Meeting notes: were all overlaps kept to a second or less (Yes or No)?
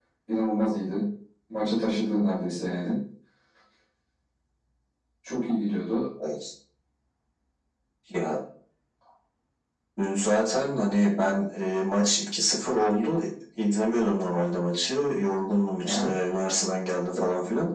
Yes